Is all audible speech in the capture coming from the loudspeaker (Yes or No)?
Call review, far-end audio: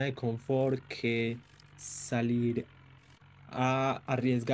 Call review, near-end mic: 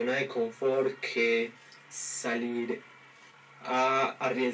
Yes